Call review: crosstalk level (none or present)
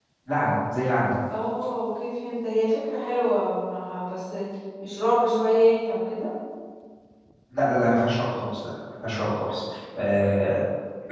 none